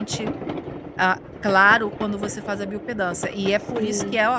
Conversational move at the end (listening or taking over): listening